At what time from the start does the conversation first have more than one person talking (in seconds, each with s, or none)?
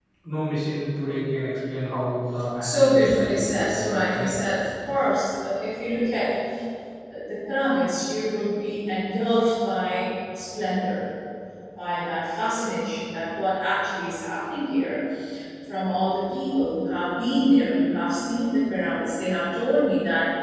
2.6 s